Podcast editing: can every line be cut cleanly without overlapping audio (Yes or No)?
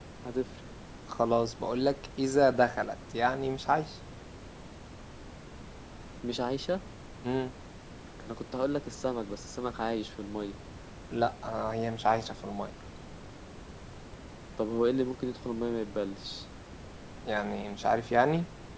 Yes